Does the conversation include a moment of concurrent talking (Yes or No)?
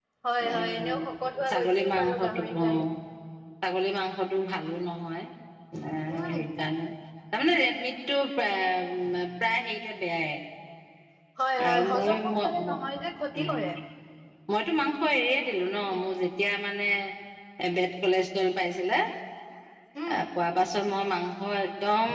Yes